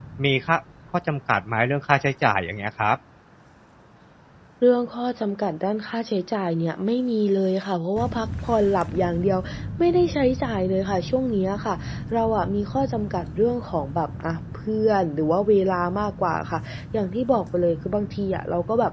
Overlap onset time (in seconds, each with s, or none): none